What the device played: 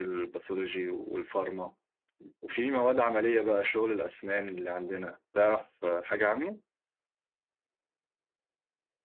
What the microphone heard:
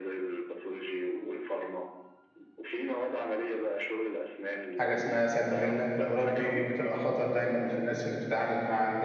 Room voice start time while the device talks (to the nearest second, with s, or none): 5 s